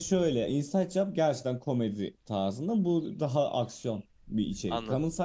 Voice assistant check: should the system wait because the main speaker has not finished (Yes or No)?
Yes